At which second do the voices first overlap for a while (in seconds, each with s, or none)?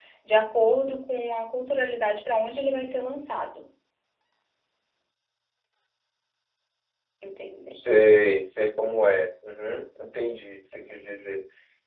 none